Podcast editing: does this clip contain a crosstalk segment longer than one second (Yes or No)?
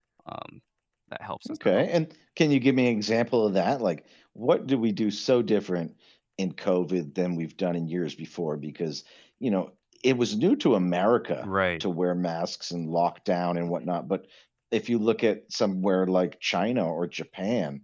No